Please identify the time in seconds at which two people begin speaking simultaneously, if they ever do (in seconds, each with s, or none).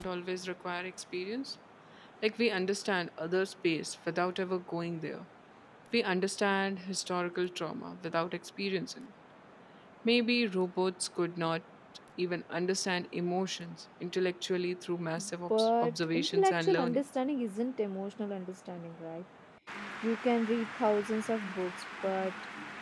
15.5 s